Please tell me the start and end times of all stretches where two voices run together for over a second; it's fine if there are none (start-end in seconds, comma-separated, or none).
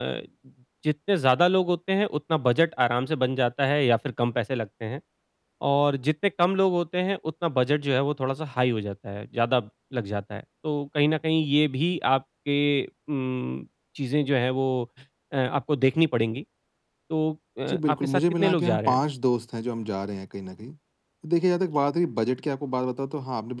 17.7-19.0